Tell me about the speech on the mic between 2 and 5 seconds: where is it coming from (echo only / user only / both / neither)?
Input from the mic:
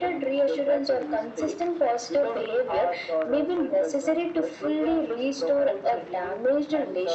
echo only